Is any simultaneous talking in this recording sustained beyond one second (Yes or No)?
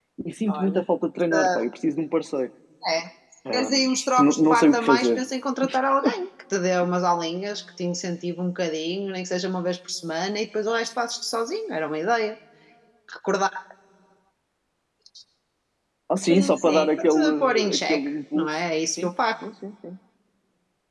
Yes